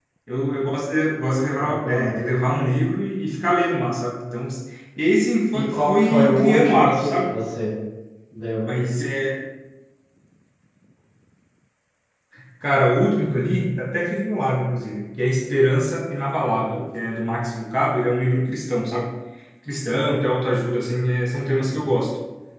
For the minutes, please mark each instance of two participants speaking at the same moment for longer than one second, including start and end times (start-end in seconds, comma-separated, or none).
5.5-7.3